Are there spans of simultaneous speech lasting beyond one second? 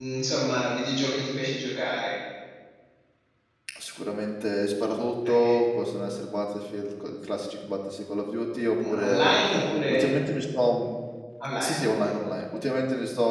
No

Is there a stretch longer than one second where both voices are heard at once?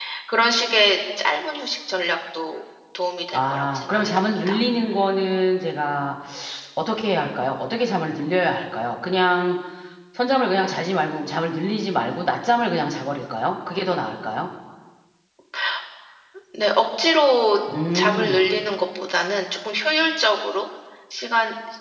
Yes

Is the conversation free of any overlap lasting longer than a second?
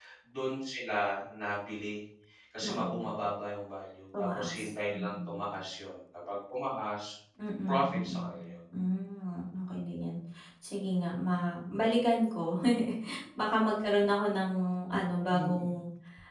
No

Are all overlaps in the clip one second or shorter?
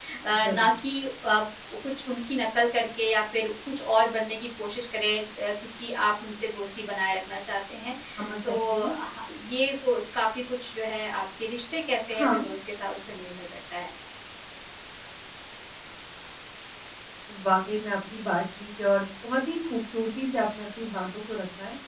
Yes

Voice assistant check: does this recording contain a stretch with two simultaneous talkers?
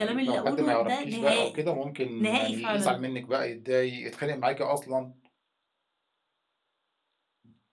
Yes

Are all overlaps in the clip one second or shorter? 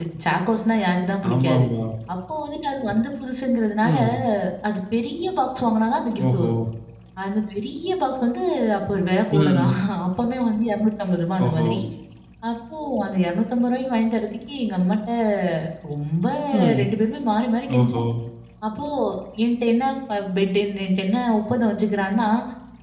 Yes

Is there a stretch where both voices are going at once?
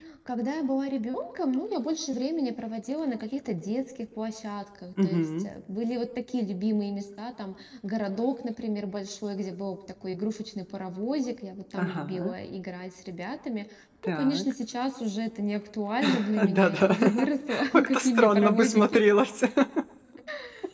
Yes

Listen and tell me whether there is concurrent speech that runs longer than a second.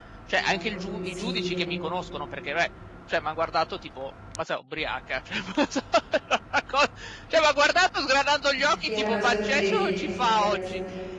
Yes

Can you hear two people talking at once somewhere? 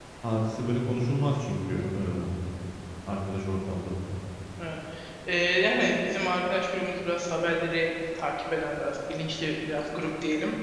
No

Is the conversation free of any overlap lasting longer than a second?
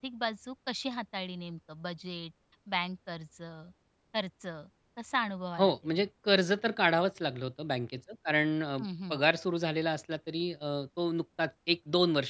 Yes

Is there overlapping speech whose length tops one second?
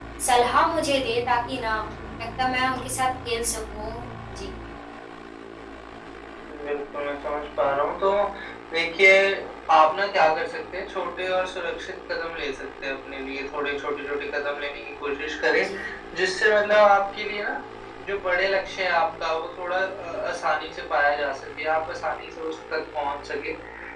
No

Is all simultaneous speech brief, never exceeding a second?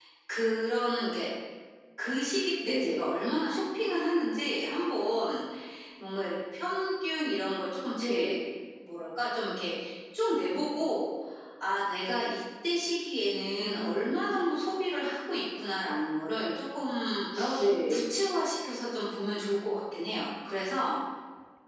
Yes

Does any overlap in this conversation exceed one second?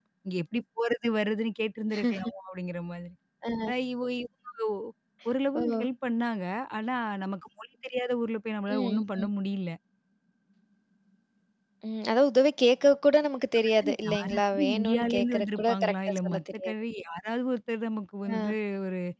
Yes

